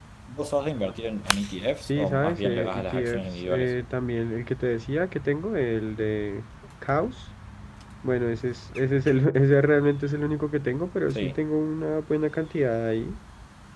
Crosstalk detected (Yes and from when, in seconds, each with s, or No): Yes, from 1.8 s